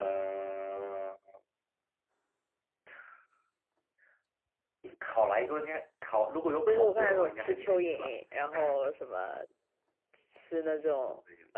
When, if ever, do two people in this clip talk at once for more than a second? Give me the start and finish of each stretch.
6.7-8.1

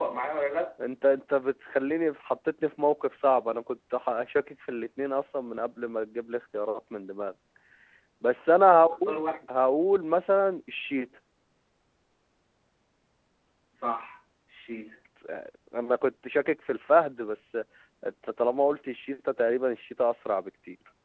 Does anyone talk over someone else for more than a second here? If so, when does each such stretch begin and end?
none

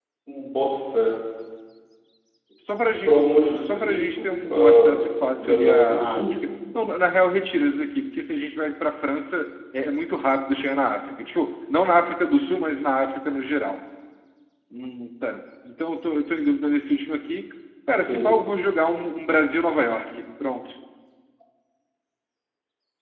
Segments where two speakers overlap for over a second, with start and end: 3.0-6.4

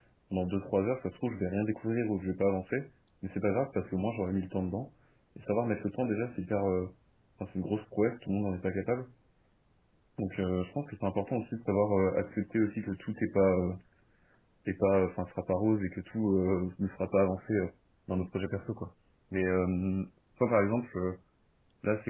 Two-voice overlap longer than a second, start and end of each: none

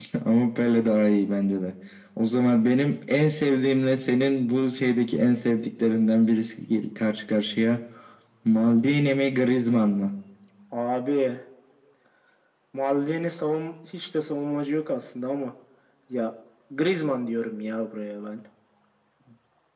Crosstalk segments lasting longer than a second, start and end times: none

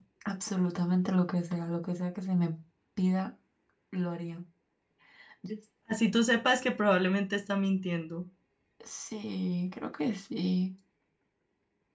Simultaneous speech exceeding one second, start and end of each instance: none

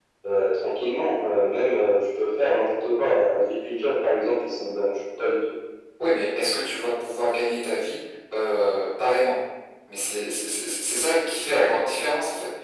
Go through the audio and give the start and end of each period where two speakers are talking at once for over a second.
none

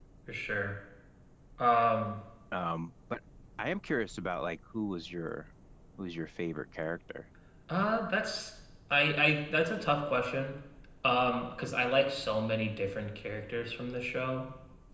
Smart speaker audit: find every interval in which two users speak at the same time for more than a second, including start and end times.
none

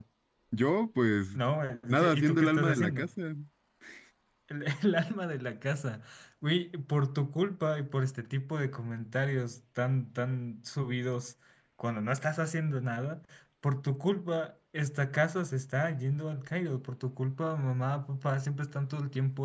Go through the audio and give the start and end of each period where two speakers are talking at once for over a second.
1.9-3.1

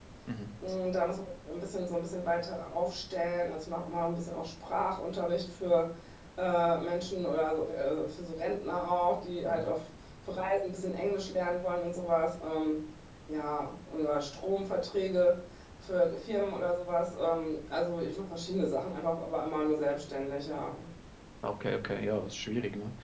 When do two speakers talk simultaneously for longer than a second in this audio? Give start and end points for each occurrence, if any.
none

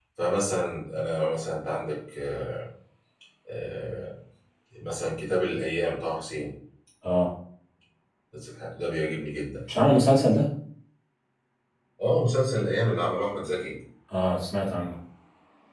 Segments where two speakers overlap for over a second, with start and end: none

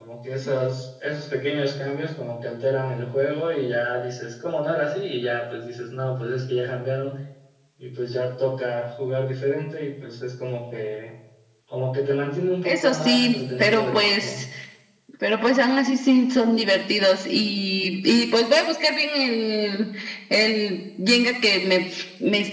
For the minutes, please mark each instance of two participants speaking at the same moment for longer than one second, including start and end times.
12.6-14.4

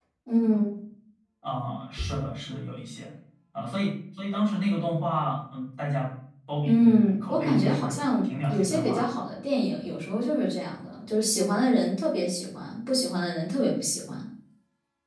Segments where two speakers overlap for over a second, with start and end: 6.6-9.1

